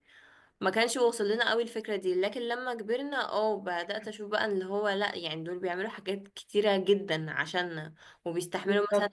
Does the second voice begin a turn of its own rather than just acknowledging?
No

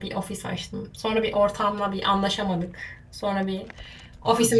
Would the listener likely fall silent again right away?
Yes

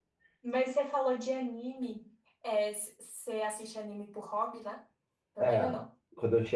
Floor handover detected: Yes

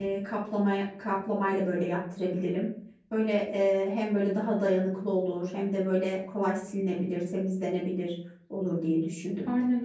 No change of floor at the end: No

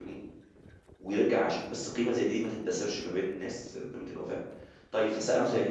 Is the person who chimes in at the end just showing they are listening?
Yes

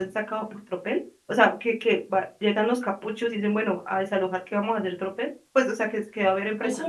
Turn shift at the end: Yes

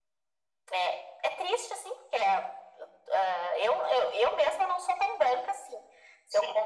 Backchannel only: Yes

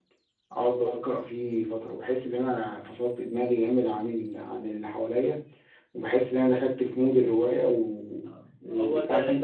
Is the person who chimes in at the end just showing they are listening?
Yes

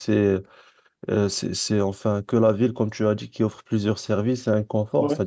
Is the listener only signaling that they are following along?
Yes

